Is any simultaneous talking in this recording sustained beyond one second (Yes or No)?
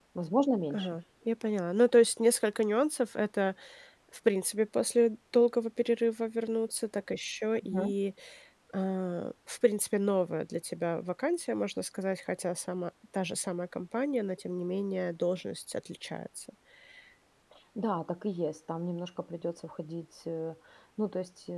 No